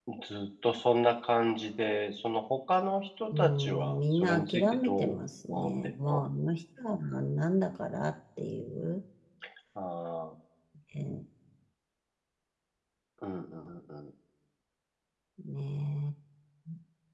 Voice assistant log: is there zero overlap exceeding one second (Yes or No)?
No